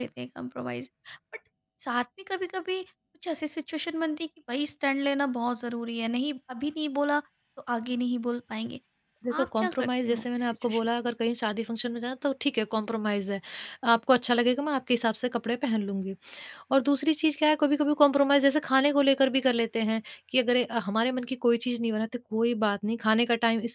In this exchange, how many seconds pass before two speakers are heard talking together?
9.4 s

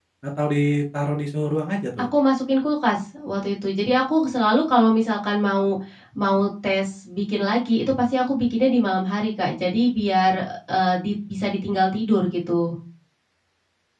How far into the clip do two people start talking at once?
none

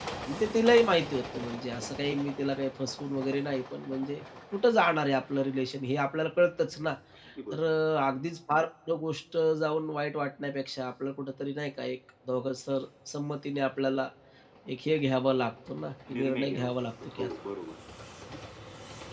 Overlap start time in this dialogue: 16.1 s

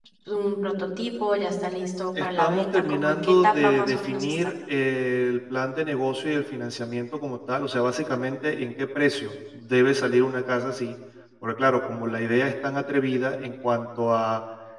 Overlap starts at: 2.2 s

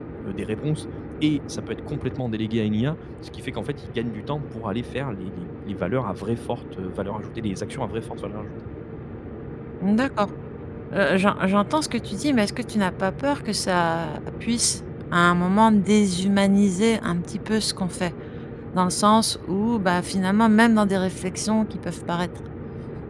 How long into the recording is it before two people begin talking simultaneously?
none

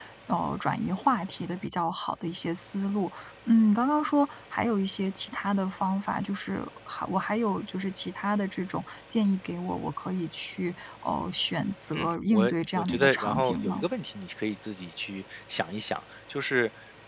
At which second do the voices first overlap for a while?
11.9 s

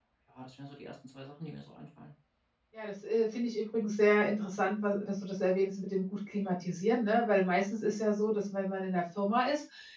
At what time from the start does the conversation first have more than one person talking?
none

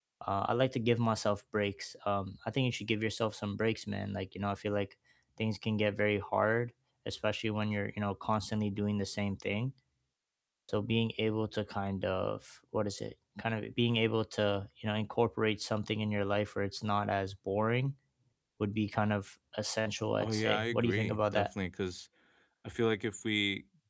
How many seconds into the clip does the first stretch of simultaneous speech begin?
20.2 s

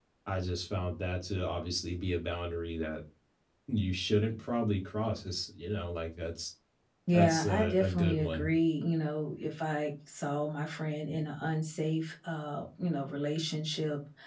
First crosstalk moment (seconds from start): 7.1 s

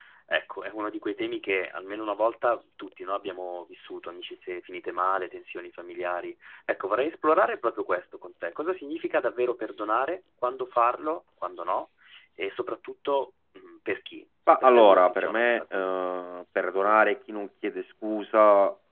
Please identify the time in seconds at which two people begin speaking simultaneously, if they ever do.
14.5 s

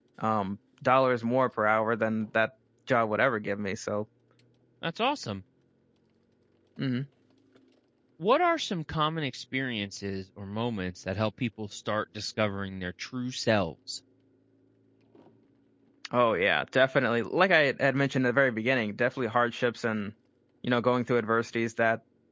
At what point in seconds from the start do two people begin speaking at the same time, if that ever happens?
none

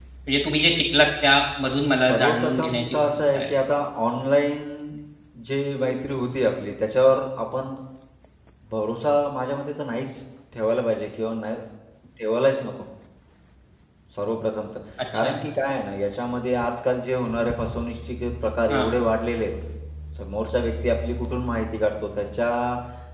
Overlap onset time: 2.1 s

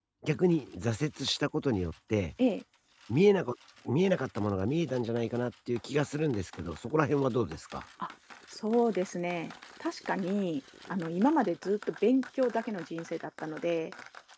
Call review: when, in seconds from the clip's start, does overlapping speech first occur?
none

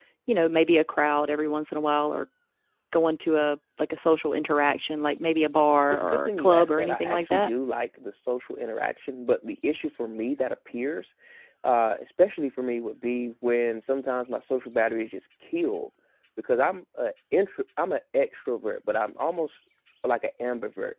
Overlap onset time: 5.9 s

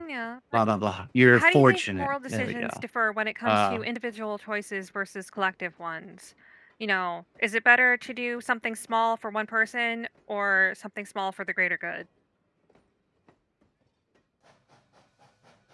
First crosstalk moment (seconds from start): 1.3 s

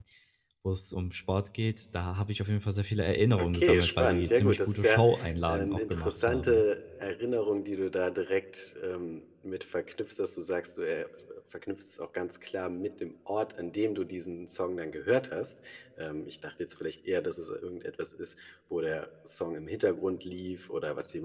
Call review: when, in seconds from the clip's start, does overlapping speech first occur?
3.4 s

